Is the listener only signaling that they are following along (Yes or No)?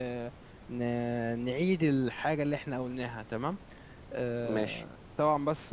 Yes